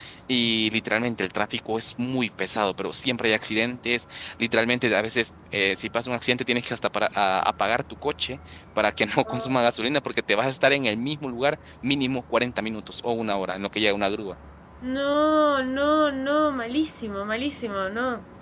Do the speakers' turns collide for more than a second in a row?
No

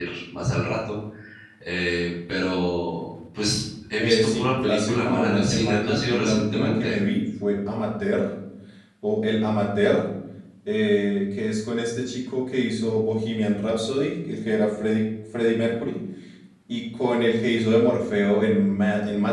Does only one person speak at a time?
No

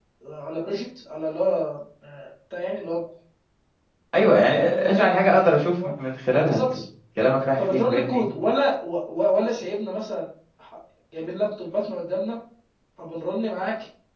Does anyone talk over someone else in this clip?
Yes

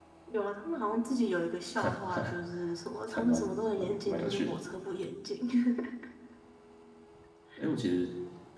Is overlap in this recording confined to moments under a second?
No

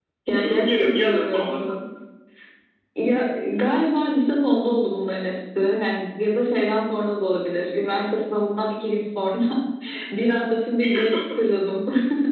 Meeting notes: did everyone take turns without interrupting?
No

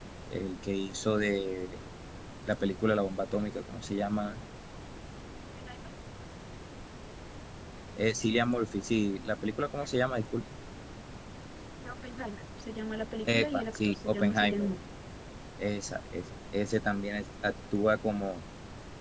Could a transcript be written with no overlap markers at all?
No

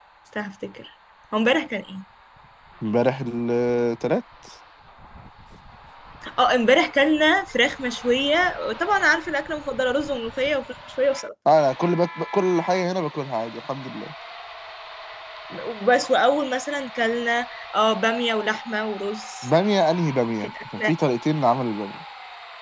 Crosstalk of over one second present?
No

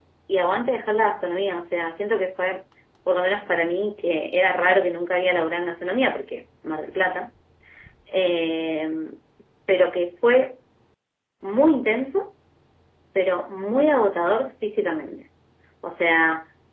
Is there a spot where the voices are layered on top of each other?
No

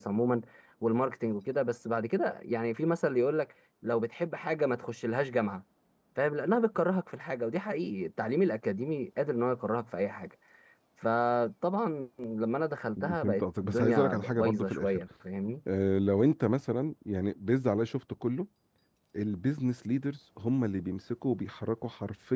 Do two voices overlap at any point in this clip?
Yes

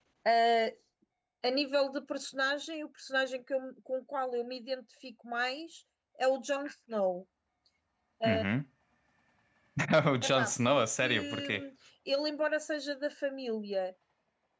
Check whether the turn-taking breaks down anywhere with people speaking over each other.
Yes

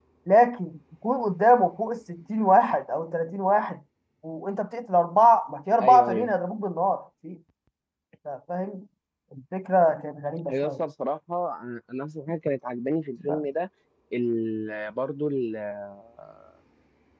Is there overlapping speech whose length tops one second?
No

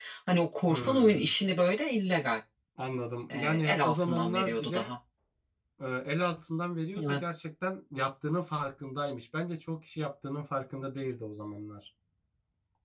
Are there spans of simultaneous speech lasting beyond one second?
Yes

